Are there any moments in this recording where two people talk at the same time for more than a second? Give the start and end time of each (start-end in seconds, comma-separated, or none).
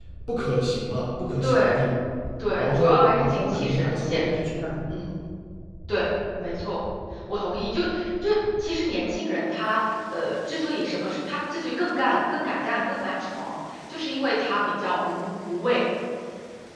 2.5-4.5